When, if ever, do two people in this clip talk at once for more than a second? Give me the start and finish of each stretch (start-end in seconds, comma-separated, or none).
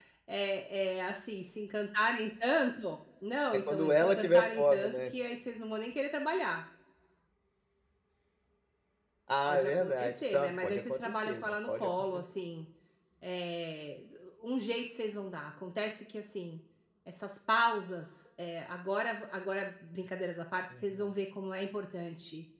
3.5-5.1, 9.4-12.2